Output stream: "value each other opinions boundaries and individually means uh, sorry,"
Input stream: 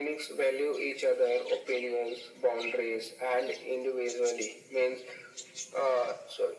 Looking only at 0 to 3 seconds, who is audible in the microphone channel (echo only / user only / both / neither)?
echo only